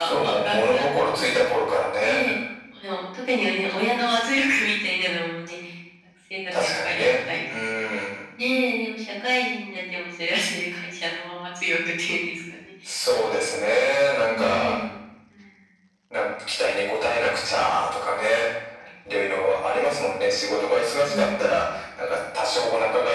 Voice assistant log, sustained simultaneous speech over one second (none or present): present